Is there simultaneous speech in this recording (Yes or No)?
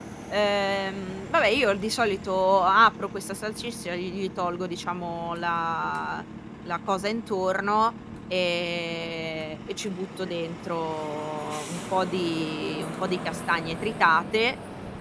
No